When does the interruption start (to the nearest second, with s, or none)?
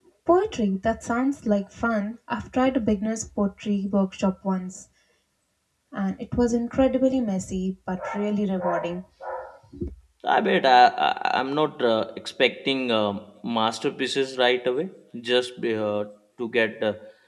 none